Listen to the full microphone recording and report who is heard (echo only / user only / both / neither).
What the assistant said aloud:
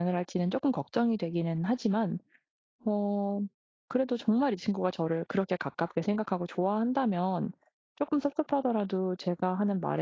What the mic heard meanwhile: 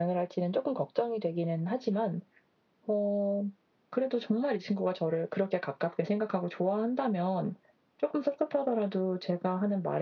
echo only